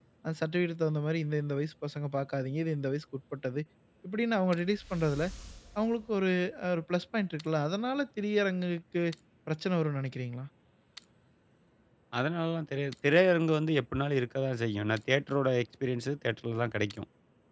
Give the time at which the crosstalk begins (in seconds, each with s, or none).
none